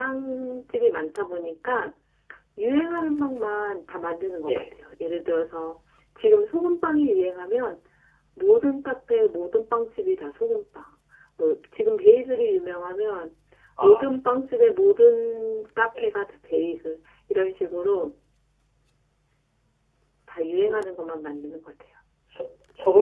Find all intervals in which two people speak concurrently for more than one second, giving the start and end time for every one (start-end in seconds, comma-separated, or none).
none